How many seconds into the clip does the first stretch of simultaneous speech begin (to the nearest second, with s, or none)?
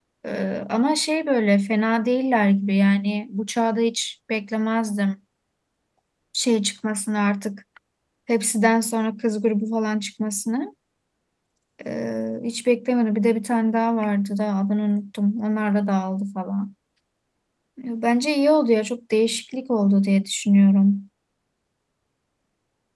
none